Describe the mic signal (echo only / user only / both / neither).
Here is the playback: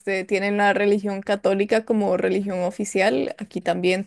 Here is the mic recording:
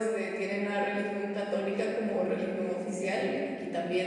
echo only